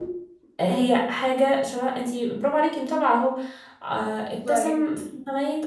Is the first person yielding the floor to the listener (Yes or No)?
No